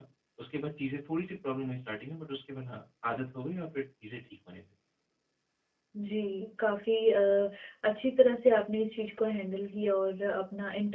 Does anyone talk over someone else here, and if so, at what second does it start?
none

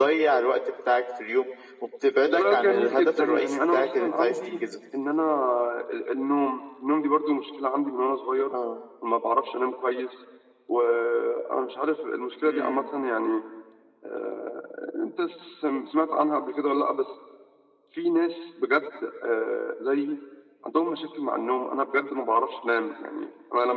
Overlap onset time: 2.3 s

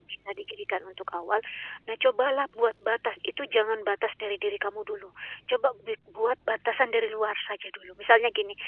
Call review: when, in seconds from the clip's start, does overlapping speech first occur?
none

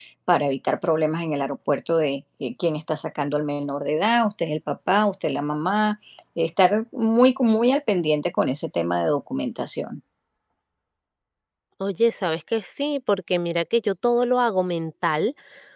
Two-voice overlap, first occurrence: none

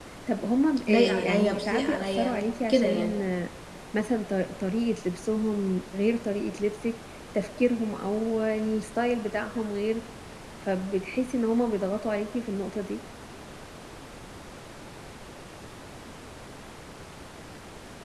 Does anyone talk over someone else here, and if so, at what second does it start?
0.9 s

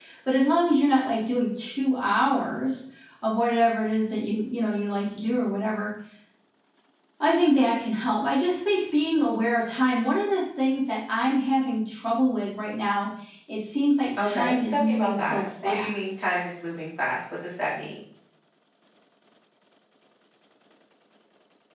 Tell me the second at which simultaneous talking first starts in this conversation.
14.2 s

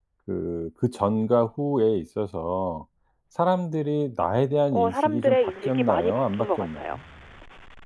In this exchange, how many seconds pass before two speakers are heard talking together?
4.7 s

